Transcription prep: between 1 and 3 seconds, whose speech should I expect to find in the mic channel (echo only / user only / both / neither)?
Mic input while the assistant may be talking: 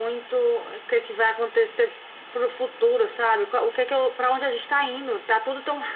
echo only